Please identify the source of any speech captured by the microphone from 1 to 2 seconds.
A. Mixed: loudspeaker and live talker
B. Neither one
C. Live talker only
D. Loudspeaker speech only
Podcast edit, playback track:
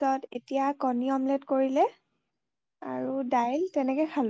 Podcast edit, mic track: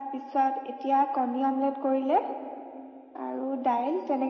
D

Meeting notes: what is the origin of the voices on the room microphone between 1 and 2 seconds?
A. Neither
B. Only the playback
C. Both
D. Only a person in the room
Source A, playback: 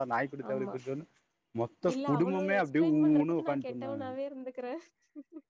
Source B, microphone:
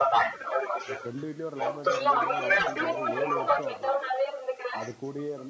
C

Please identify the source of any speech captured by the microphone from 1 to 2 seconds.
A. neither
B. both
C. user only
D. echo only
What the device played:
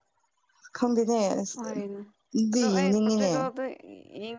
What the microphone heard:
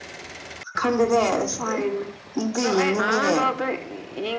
D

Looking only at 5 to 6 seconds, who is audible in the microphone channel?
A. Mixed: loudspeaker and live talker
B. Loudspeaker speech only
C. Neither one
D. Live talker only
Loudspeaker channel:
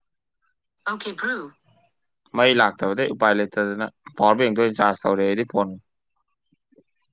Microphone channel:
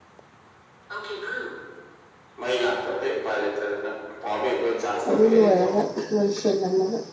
A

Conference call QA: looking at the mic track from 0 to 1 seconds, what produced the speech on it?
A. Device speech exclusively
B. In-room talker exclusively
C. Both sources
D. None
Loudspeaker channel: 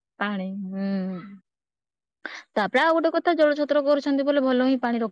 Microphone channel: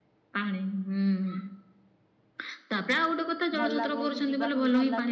A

